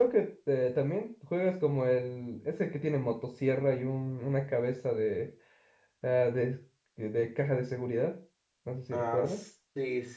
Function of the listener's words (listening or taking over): taking over